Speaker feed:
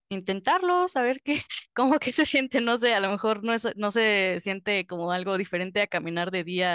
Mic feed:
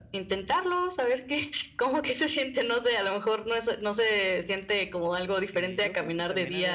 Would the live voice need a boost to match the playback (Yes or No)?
Yes